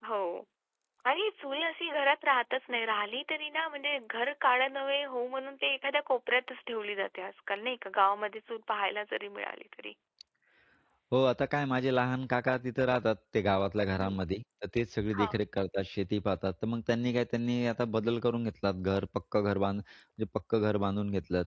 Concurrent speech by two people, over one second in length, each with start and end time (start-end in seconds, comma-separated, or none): none